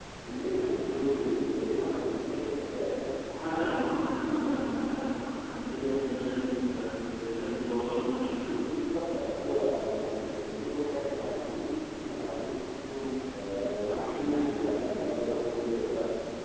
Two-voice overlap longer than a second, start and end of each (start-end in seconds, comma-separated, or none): none